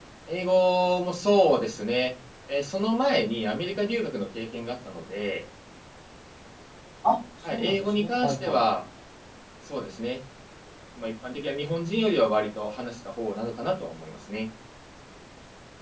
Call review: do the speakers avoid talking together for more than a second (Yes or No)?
No